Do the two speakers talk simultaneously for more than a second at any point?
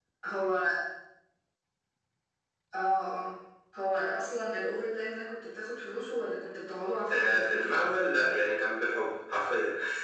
Yes, from 7.1 s

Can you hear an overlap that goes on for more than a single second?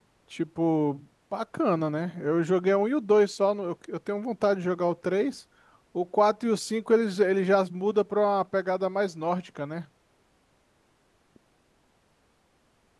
No

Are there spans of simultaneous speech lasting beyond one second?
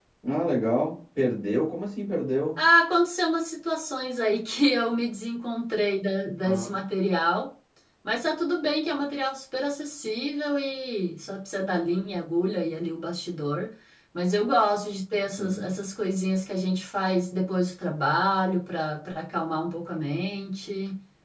No

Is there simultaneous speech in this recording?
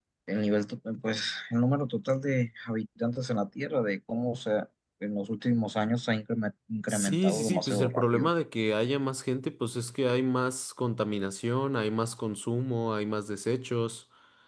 Yes, from 6.9 s

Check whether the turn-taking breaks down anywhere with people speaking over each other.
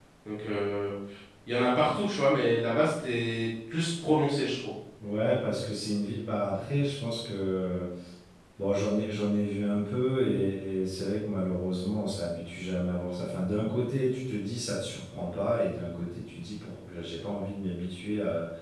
No

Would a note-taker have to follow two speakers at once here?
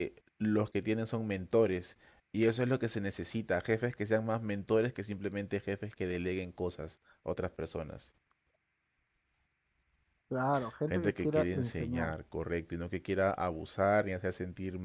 Yes, from 10.9 s

